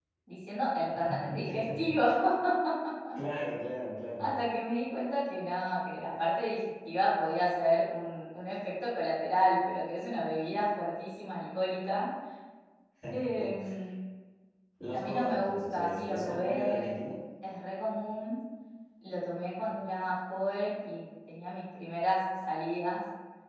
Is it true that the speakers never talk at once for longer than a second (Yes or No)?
No